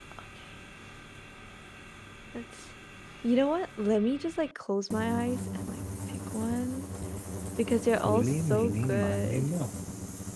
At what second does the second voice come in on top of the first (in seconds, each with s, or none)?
8.0 s